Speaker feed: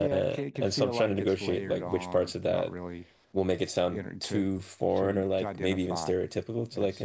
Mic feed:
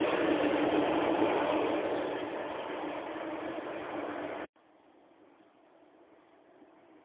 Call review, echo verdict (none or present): none